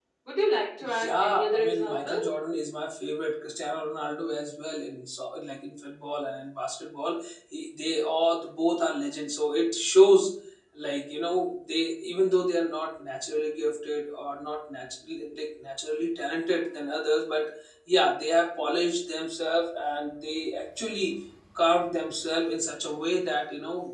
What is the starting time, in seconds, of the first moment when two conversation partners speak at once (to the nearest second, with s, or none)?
1 s